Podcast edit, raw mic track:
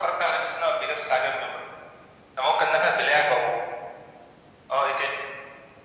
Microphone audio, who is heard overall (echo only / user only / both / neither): echo only